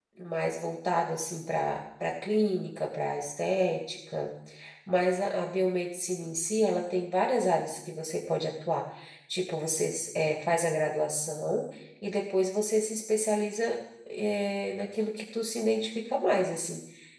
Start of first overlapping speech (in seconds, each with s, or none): none